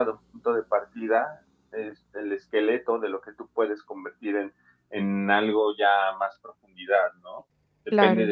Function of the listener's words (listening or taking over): listening